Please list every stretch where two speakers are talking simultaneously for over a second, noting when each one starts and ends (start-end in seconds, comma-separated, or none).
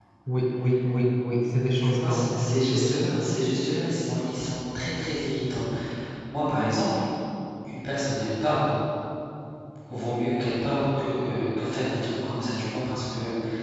1.8-3.2